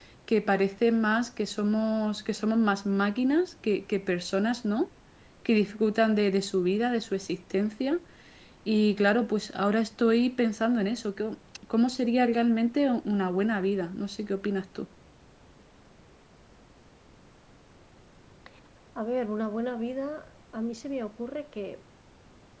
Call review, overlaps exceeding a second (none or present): none